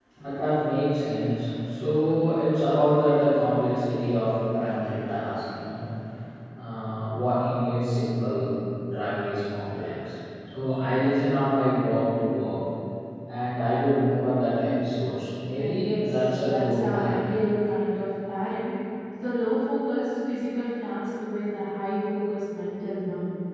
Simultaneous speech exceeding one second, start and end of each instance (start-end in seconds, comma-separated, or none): 15.6-17.3